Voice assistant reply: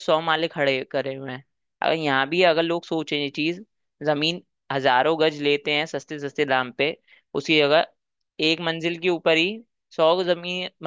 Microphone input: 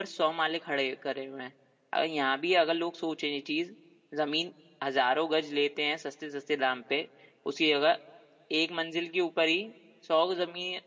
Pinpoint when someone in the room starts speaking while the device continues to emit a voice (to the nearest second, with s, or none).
none